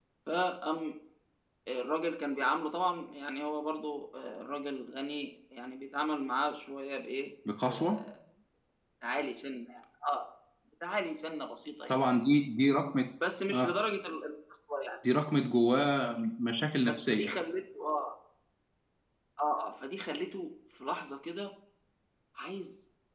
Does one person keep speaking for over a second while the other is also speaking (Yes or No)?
No